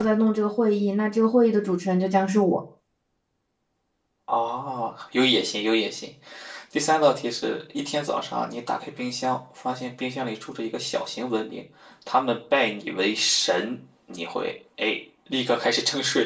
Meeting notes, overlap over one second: none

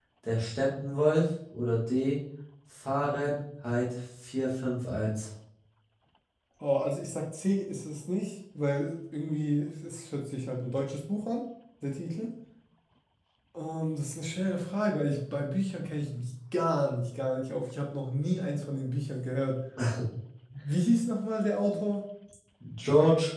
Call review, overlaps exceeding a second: none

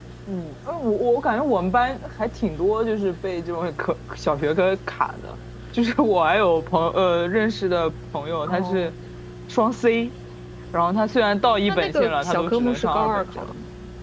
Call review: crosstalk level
present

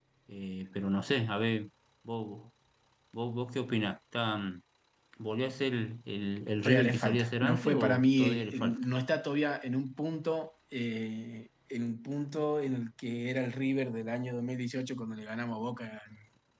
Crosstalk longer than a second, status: present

